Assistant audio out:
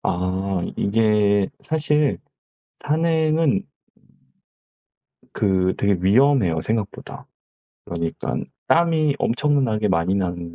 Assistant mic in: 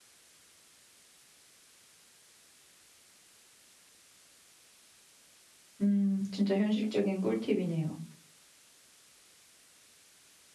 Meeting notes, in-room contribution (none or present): present